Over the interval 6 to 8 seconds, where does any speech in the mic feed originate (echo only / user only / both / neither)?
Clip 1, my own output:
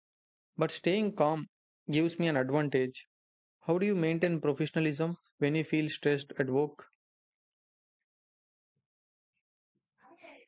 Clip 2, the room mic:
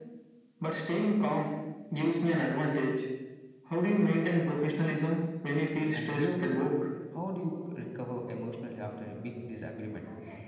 both